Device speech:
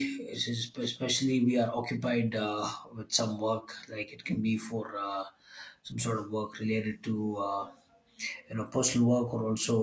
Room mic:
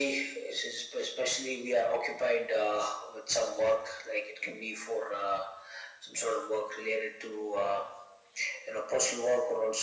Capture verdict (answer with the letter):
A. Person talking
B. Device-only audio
B